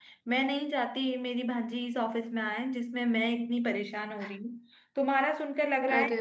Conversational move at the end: listening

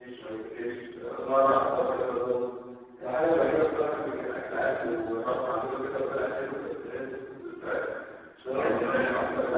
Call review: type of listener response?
listening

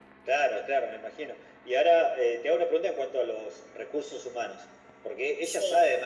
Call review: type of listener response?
listening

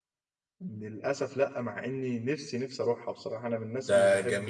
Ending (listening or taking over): taking over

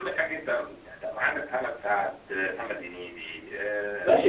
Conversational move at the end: taking over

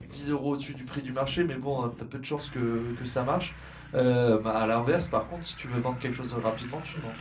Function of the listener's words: taking over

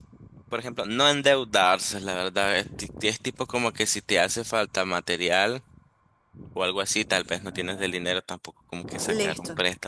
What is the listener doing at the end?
listening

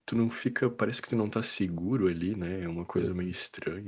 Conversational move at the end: listening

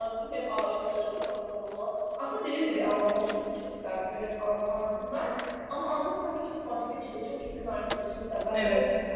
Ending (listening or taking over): listening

